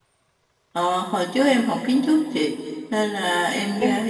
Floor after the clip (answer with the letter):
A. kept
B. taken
A